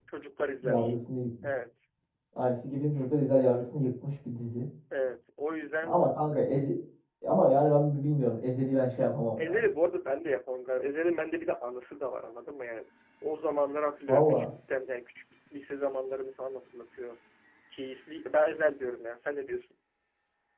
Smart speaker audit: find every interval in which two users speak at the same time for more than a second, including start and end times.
none

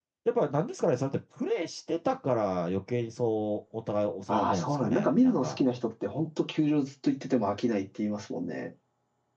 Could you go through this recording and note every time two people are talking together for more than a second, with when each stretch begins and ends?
4.3-5.6

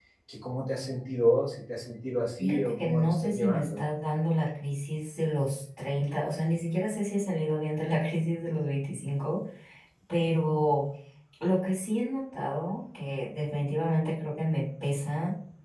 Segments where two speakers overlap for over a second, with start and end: 2.4-3.8

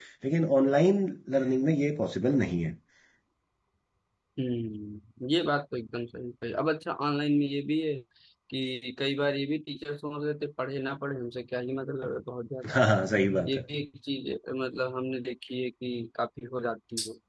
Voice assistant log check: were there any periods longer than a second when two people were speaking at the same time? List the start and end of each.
none

